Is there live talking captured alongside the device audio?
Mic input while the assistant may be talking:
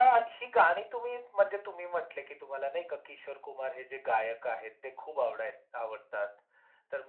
No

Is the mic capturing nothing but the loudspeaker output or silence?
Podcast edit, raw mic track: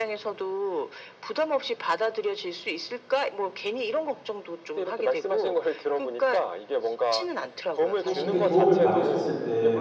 No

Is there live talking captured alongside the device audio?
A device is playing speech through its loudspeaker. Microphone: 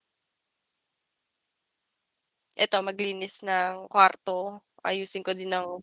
Yes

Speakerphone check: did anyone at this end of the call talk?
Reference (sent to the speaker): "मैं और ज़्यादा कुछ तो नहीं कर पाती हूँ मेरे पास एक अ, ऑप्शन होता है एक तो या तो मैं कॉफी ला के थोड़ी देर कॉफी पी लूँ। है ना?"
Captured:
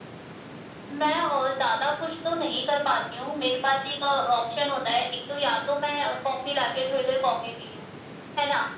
No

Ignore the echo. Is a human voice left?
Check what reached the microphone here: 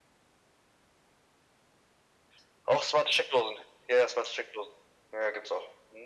No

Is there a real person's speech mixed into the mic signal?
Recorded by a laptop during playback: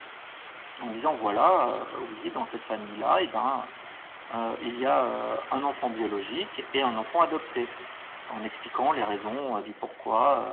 No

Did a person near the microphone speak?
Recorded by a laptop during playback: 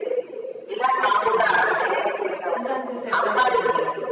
Yes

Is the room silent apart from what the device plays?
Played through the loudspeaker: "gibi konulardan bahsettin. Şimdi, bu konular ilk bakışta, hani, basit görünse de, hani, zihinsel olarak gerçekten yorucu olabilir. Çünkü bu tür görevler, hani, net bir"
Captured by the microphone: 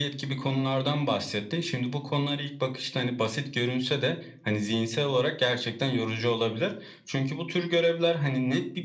Yes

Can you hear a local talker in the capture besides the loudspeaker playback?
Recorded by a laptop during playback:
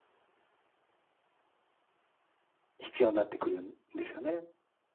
Yes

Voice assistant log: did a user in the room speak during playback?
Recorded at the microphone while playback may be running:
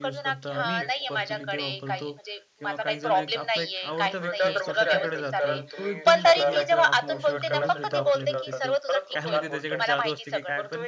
Yes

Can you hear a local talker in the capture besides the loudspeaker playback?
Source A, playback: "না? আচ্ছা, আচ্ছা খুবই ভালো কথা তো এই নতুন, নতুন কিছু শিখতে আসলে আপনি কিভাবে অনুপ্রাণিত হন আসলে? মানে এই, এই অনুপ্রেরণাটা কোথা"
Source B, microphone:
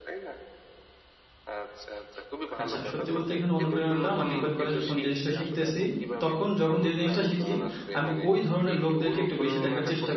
Yes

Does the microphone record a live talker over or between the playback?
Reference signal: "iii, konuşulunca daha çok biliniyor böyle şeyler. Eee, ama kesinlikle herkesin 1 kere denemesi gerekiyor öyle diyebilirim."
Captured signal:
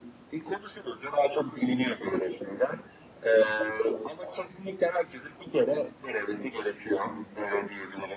No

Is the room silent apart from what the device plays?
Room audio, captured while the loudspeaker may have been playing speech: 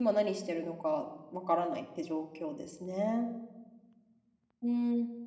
No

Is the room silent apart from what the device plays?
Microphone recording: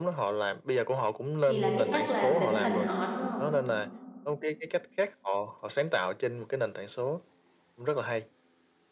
No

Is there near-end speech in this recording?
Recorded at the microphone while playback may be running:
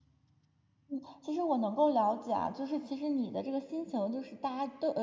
Yes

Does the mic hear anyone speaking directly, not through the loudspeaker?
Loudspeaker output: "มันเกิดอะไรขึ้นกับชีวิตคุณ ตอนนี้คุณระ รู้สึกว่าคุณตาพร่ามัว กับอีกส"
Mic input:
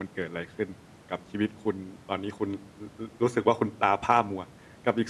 No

